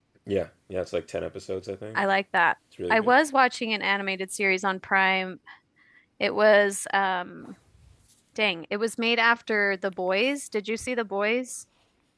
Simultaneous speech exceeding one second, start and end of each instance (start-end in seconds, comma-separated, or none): none